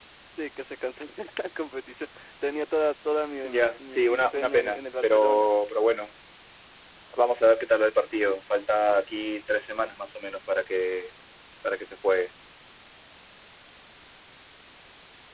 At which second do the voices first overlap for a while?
3 s

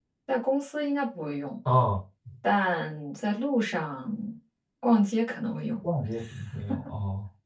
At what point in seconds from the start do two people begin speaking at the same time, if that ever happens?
none

